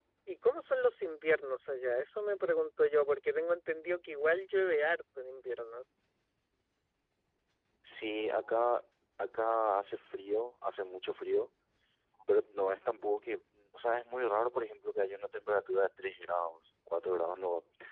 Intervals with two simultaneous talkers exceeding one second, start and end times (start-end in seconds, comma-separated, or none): none